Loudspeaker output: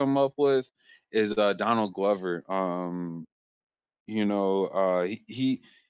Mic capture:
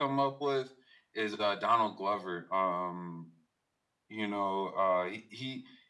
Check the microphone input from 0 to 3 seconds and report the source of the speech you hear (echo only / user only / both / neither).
echo only